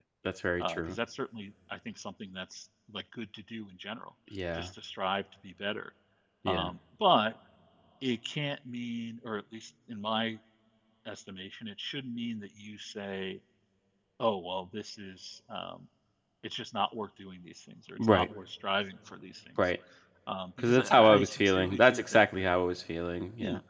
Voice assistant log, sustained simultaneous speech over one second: present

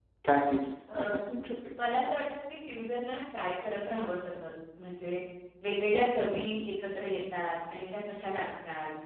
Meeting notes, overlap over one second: none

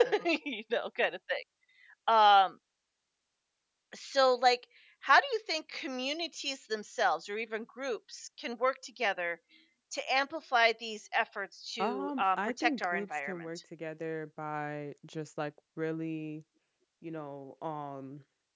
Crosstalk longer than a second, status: present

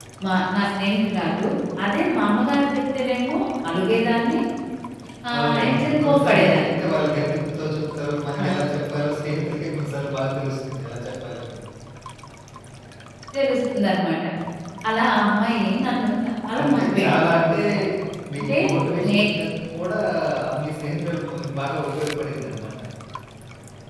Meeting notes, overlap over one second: present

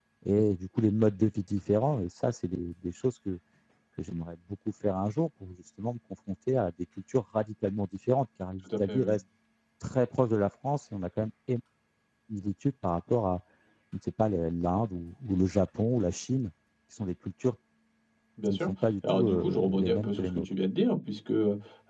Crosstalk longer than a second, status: present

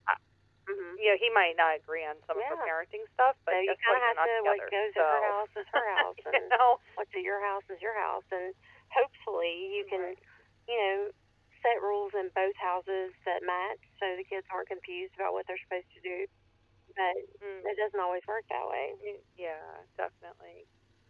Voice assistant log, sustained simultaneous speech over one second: present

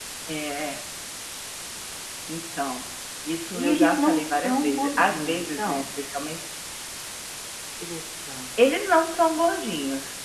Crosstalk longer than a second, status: present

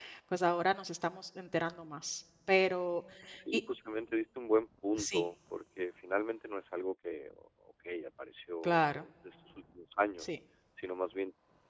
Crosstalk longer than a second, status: none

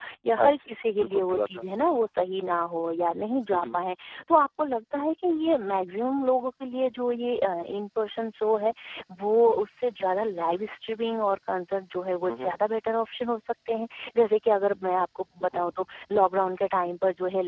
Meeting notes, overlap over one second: present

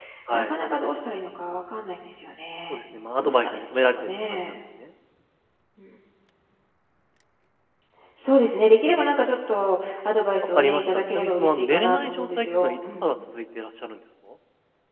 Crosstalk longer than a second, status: present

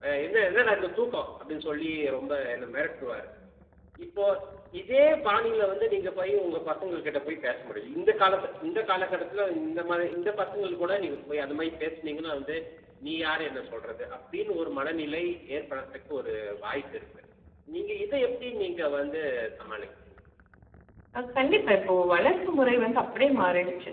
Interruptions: none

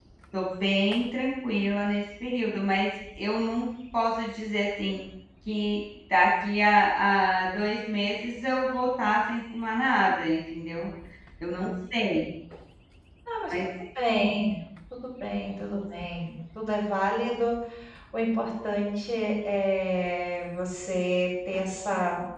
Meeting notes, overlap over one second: none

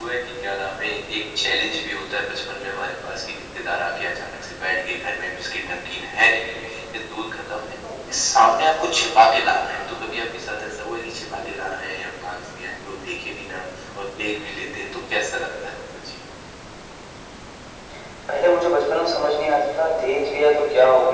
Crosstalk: none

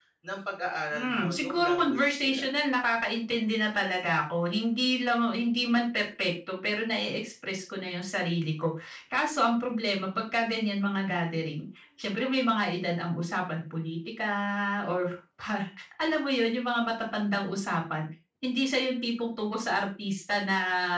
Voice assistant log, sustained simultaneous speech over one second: present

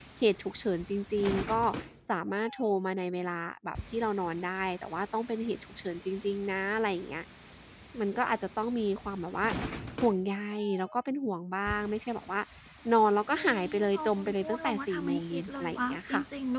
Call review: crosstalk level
present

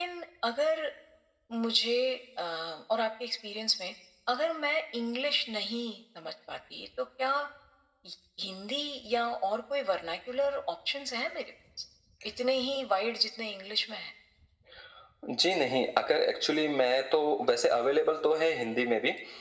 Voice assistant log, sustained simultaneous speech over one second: none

